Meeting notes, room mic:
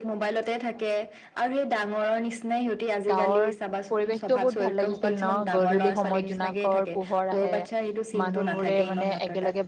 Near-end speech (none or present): present